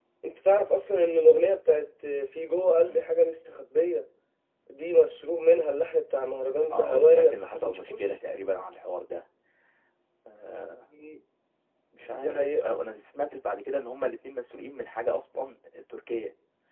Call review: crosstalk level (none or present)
present